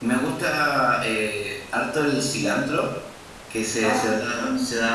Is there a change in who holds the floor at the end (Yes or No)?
No